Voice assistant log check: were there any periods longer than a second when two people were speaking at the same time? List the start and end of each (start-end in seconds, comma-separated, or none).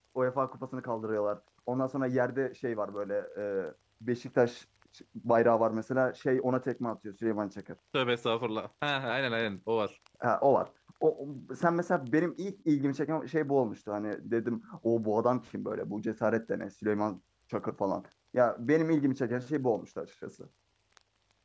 none